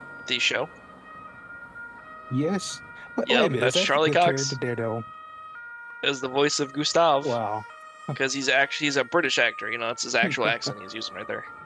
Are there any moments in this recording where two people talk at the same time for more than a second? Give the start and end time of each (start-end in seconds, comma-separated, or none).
3.2-4.6